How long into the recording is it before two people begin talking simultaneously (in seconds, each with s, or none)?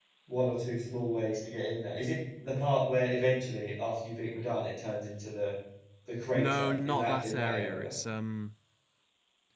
6.3 s